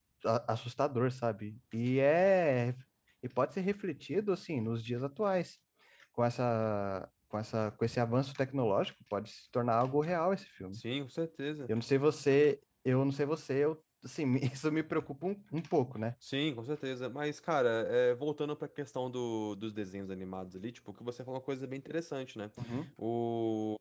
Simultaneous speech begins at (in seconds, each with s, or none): none